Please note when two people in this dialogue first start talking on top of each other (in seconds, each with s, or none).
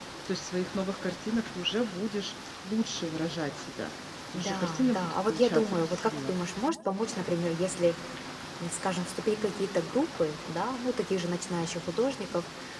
4.3 s